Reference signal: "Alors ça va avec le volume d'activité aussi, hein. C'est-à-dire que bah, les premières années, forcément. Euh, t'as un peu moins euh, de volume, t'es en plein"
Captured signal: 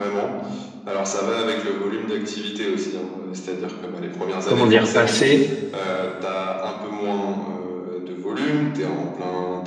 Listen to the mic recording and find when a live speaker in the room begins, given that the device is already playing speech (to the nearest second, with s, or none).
4 s